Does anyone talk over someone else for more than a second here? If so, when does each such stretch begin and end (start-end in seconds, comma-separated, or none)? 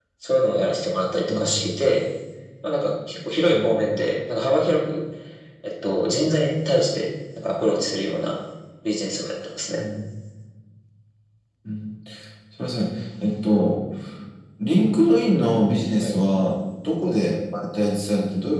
none